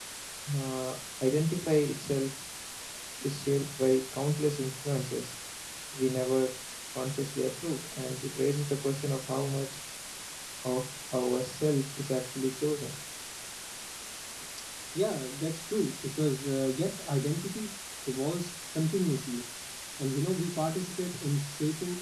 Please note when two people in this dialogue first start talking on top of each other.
none

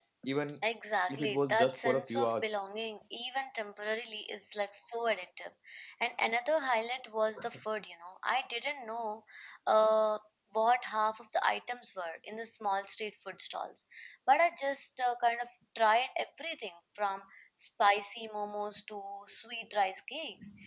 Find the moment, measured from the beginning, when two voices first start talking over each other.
1.1 s

